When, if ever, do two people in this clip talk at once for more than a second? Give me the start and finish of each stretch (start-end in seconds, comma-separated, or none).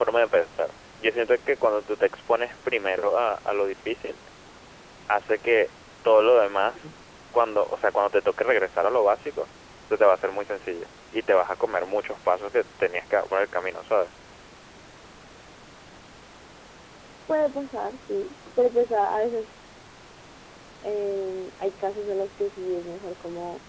none